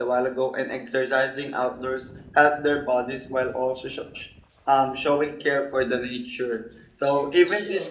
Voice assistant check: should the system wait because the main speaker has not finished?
Yes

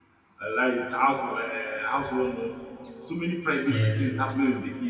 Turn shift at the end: No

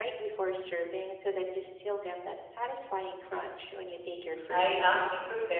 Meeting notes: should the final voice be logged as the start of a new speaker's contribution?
Yes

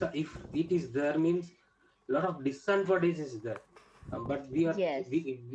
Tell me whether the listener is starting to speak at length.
No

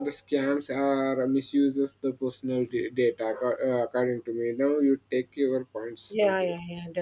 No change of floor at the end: No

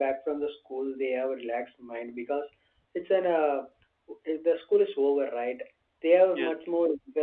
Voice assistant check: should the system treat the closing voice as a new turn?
No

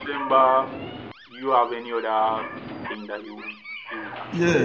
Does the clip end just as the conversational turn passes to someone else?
Yes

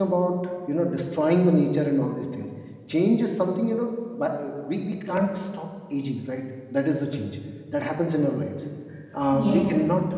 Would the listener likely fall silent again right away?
Yes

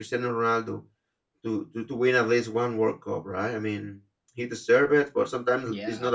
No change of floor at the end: Yes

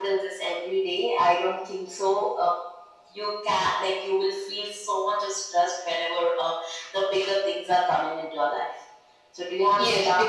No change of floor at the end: No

